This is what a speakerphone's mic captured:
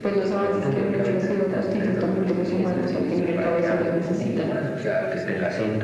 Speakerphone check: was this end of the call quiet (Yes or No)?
No